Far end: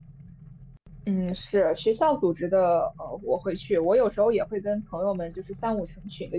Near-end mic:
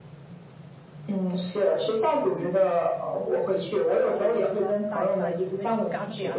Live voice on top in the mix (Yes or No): No